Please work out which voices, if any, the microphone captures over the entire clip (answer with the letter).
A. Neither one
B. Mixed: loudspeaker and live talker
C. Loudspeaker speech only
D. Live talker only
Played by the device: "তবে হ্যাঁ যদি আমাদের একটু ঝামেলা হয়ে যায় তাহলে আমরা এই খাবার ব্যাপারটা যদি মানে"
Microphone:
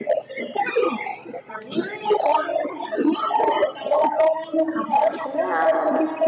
B